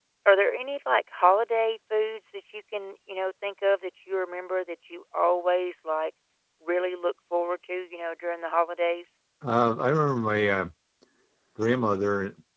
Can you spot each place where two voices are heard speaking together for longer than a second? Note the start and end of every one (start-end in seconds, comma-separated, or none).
none